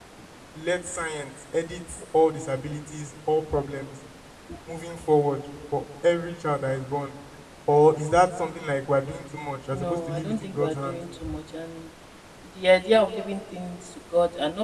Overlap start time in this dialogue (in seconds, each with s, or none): 9.7 s